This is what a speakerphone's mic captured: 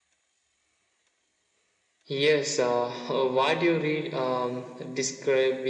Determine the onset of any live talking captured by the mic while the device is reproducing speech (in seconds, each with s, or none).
none